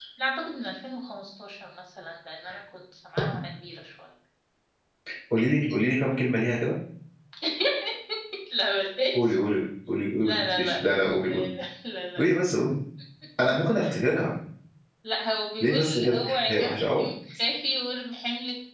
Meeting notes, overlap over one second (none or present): present